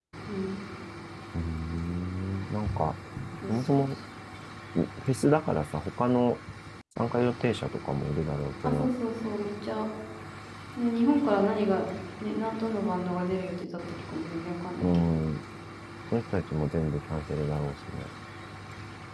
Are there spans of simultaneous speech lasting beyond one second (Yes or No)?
No